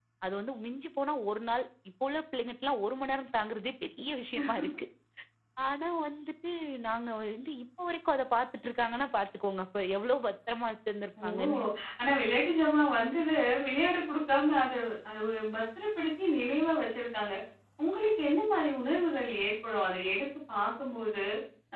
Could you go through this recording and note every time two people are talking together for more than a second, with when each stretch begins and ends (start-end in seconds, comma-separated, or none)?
none